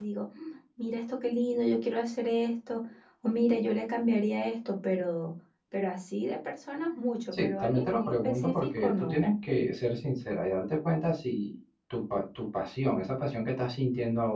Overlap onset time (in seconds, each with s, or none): 7.3 s